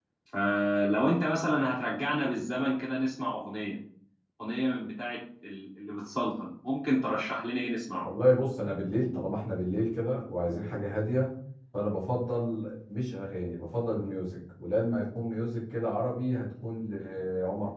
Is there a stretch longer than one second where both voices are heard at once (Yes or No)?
No